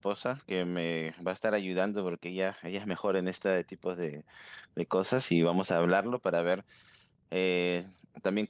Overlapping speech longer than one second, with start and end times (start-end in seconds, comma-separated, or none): none